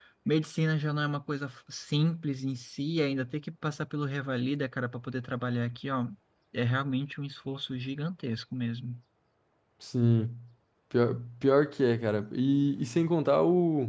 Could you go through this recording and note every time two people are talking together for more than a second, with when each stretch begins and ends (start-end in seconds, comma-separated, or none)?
none